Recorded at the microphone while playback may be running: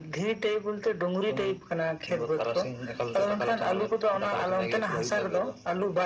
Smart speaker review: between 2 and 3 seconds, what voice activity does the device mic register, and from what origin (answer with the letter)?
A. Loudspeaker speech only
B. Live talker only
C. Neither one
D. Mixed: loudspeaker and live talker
A